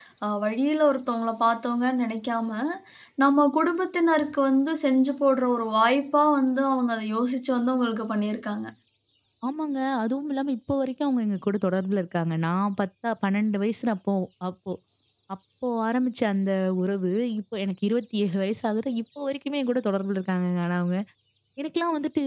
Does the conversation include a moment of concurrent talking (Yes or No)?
No